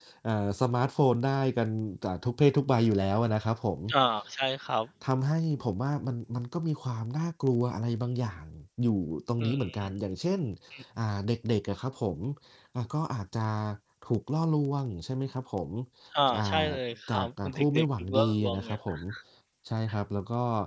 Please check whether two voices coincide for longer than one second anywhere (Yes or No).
Yes